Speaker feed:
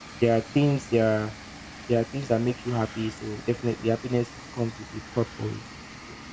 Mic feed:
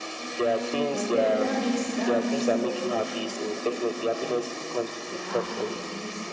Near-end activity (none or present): present